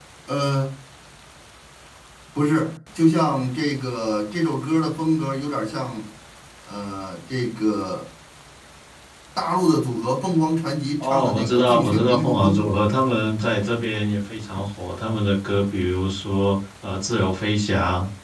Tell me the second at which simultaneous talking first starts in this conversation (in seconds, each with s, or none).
11.0 s